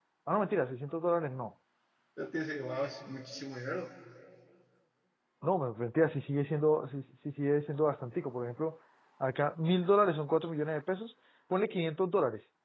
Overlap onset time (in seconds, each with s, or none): none